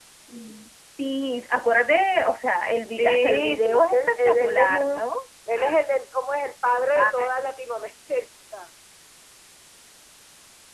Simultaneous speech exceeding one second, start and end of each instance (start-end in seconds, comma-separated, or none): 3.0-5.0